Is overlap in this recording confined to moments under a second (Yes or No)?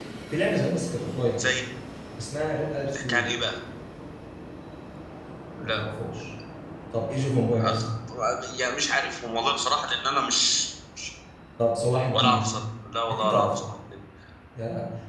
Yes